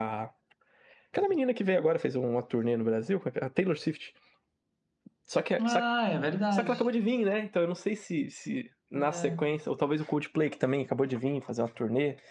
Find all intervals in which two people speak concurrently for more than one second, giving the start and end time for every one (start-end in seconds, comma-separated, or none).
none